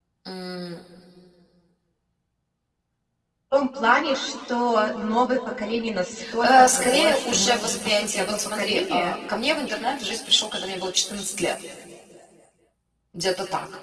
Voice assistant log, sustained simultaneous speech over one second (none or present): present